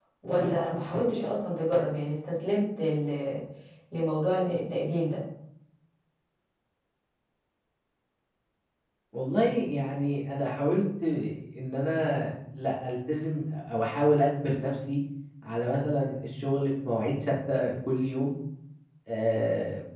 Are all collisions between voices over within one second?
Yes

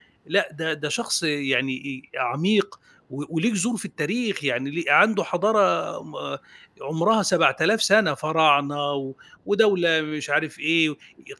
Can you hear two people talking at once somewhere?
No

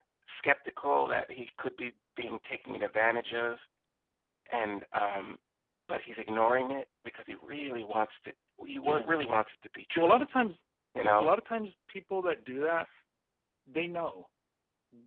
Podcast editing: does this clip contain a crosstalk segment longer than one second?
No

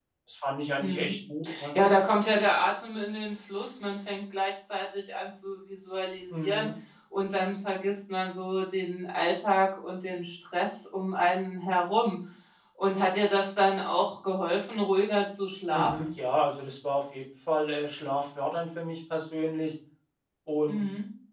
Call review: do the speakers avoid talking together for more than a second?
Yes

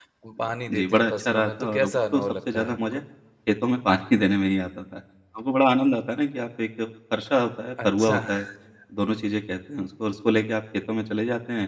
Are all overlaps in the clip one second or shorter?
No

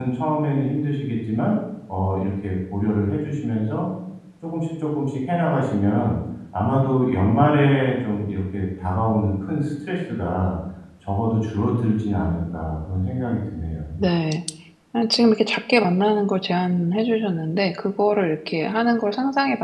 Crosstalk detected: No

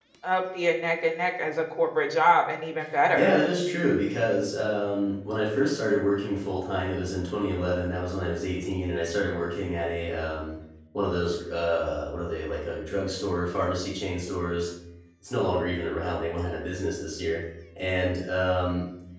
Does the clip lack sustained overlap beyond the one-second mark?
Yes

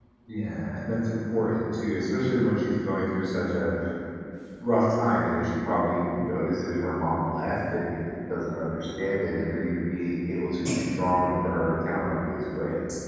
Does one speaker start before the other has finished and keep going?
No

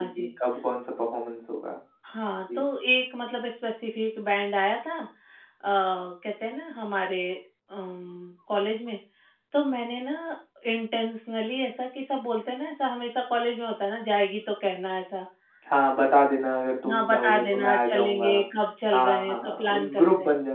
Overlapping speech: Yes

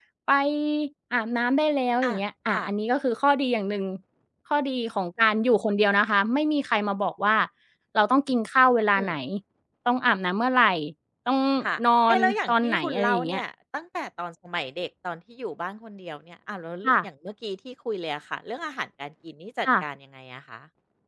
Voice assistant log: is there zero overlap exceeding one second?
No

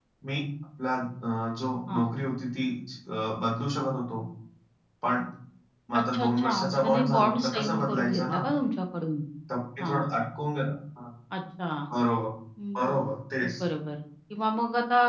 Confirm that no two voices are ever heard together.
No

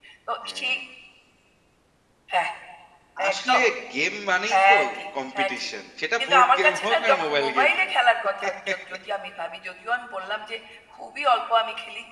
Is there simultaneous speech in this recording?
Yes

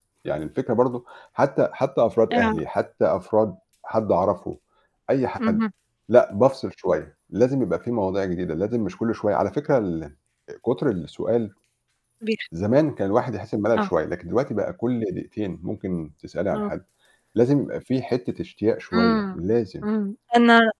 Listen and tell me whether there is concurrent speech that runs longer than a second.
No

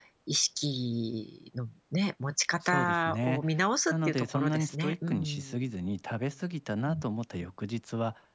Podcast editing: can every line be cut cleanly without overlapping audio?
No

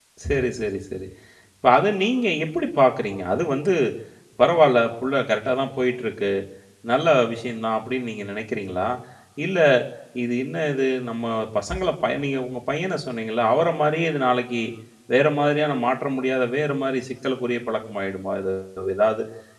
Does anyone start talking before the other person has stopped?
No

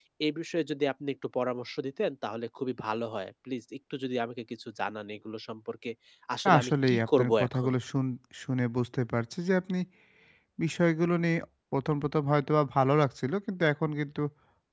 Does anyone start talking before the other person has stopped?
Yes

